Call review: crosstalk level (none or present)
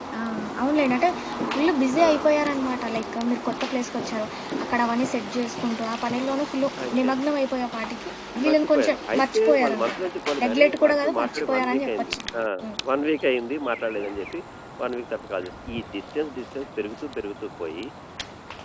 present